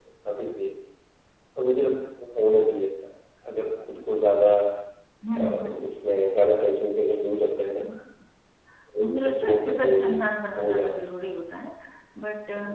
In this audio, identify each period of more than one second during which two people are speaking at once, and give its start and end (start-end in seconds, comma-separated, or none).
9.0-11.0